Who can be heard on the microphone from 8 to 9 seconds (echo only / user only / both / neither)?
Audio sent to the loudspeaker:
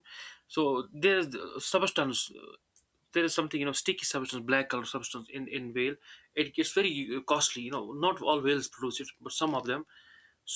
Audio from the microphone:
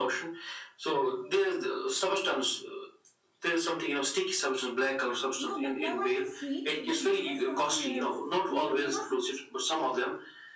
both